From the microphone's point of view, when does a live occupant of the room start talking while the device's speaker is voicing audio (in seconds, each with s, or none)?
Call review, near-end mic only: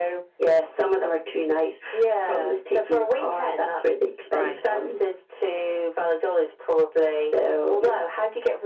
4.3 s